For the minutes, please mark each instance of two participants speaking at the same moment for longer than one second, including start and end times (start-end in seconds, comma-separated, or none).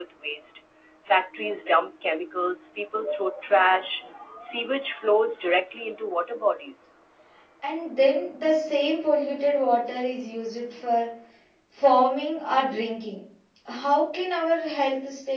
none